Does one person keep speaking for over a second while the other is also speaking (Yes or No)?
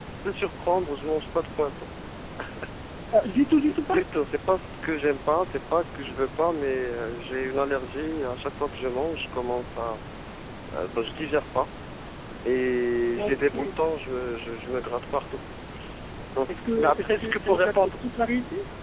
Yes